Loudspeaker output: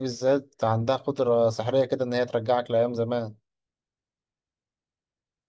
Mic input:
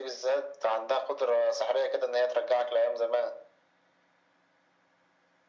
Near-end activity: none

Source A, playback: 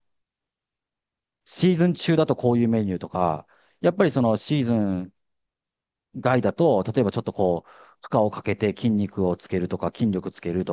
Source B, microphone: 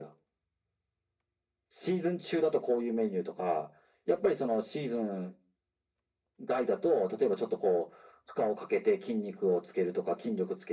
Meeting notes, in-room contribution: none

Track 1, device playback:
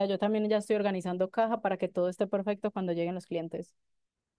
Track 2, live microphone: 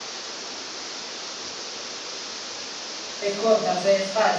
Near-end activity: present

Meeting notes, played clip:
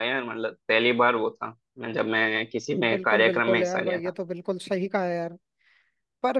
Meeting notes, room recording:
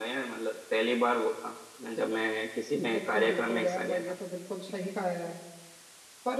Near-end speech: none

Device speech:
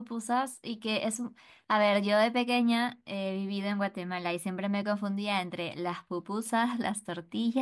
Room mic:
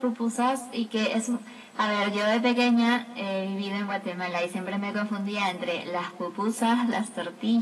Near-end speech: none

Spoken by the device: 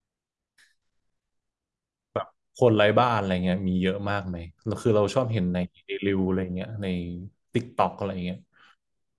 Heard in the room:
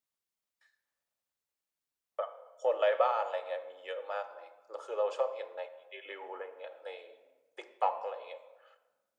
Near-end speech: none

